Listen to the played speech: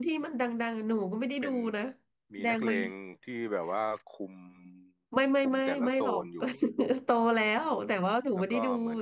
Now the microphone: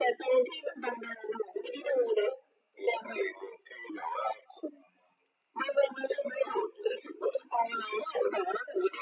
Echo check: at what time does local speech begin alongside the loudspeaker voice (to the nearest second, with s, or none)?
none